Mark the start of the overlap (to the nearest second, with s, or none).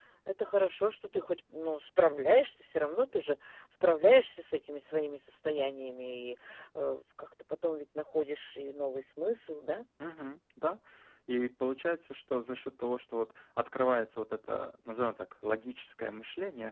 none